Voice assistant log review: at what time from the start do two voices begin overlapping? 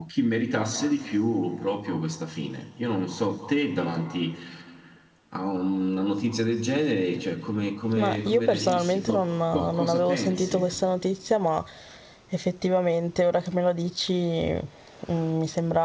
8.0 s

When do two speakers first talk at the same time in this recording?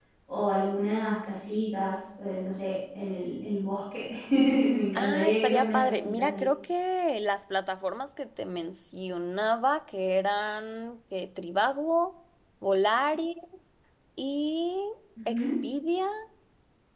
5.0 s

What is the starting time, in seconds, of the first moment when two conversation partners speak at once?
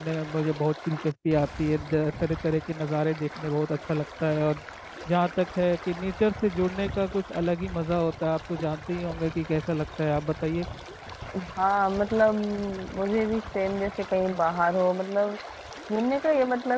none

